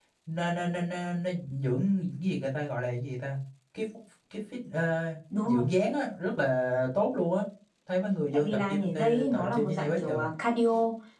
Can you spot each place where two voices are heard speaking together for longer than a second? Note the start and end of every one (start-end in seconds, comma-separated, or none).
8.3-10.2